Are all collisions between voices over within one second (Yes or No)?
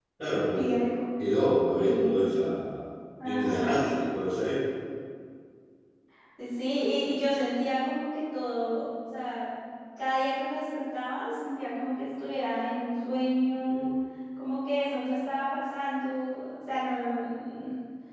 Yes